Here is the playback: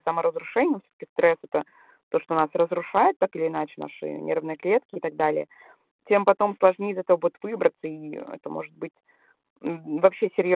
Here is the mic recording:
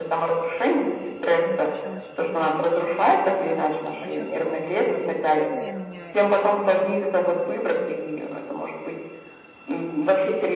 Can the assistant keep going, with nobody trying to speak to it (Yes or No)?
No